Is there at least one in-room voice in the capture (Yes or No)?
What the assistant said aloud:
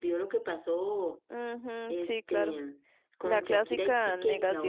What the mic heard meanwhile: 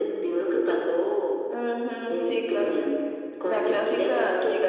No